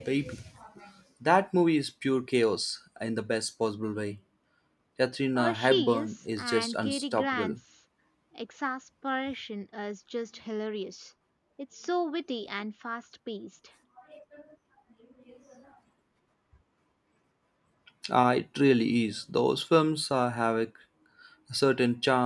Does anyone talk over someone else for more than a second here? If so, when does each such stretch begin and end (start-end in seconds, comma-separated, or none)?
5.3-7.6